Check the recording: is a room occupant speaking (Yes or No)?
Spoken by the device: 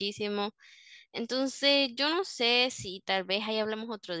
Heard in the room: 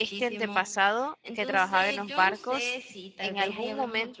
Yes